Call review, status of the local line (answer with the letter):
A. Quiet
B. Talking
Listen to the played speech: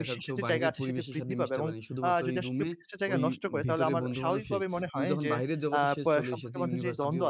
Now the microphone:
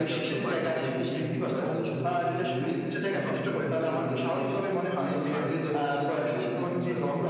A